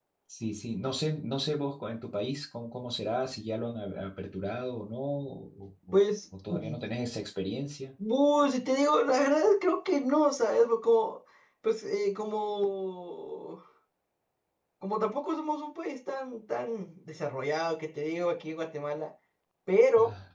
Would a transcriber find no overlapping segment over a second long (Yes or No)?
Yes